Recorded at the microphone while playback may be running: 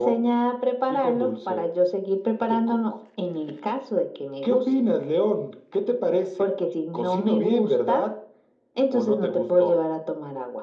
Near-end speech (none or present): none